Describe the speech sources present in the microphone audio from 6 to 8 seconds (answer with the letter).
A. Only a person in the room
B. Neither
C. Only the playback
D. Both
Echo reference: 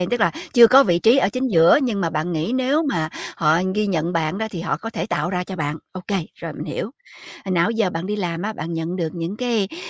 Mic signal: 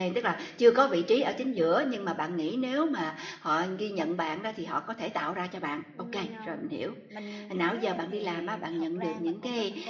D